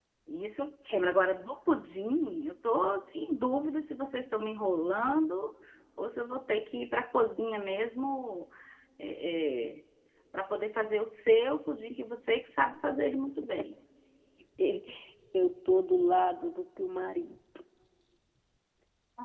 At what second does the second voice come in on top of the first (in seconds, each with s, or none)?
none